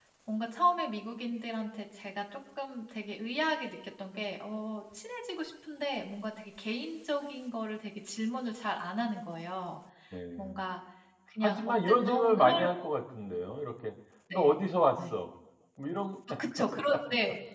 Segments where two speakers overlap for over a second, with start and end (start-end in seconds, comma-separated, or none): 11.4-12.7